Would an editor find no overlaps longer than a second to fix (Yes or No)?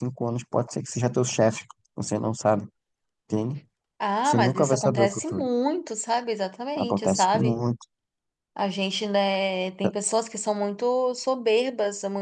No